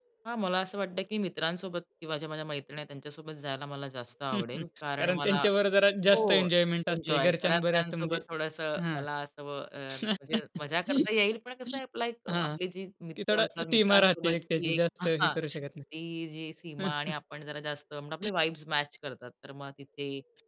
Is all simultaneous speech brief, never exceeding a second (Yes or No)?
No